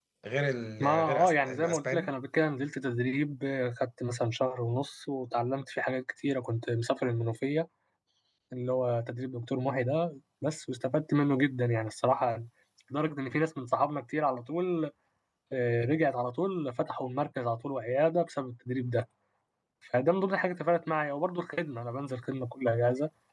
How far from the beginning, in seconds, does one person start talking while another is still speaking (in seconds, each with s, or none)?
0.8 s